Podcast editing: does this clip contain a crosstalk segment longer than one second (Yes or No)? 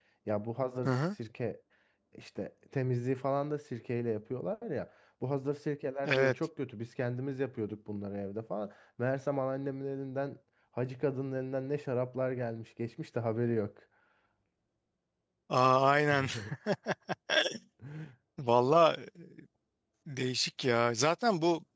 No